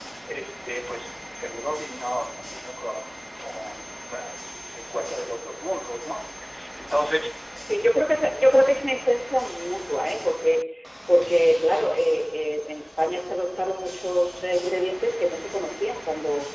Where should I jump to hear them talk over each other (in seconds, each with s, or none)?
none